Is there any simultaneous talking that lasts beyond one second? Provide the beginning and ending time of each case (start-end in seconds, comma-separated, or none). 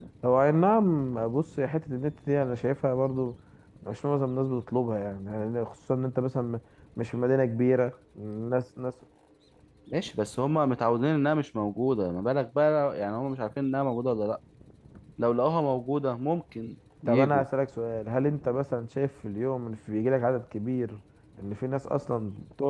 none